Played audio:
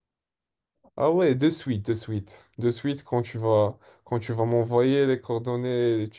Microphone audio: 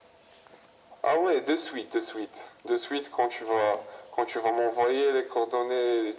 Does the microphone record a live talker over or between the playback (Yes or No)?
No